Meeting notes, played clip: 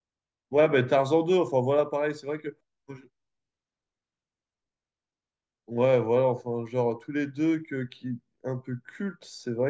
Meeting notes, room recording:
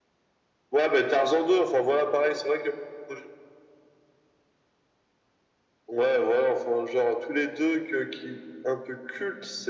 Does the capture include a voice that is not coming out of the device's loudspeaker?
No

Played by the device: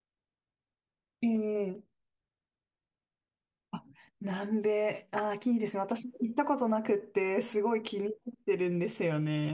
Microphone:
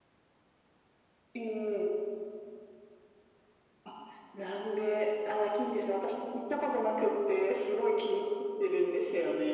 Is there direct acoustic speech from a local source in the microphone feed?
No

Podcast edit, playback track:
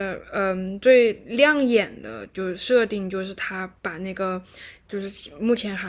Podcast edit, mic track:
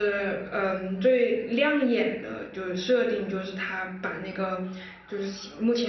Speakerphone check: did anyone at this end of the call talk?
No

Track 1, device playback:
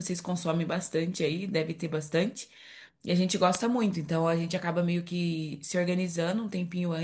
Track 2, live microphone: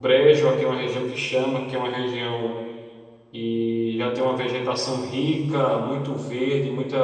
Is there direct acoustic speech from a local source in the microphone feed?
Yes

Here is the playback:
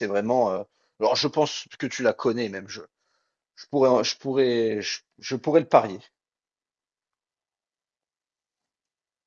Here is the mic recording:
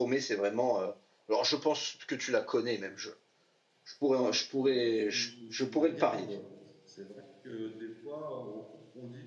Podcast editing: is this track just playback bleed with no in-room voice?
No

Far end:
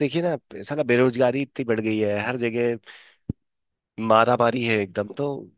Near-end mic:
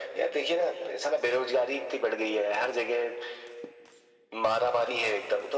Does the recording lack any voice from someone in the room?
Yes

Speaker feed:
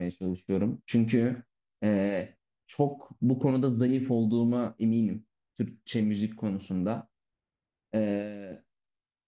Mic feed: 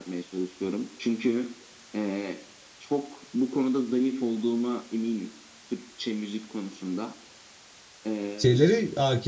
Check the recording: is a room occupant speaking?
Yes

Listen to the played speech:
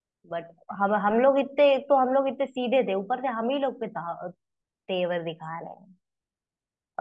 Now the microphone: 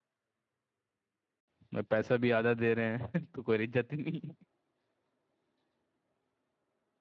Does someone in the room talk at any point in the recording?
Yes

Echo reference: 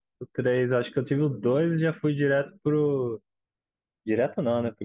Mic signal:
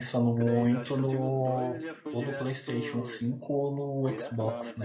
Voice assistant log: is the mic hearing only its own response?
No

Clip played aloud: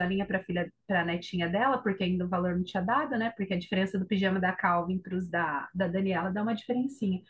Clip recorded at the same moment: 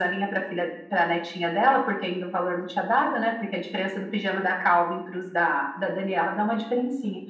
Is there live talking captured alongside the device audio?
No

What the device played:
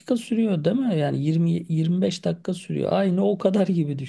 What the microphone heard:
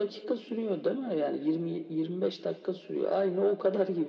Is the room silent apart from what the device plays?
Yes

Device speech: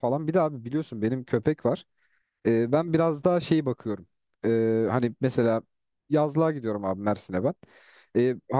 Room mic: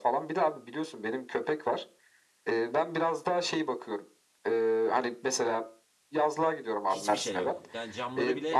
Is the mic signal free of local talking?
No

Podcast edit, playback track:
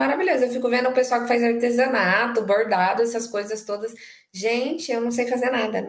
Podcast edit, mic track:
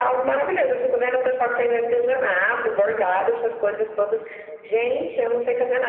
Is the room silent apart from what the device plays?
Yes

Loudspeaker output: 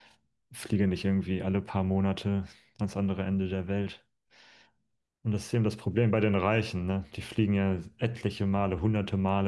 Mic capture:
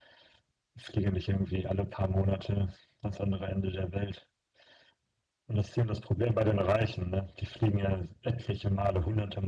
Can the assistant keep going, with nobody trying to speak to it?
Yes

